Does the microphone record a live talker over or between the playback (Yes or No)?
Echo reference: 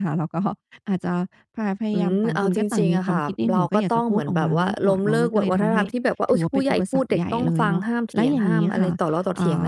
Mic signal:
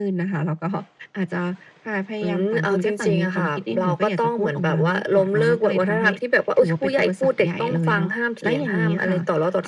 No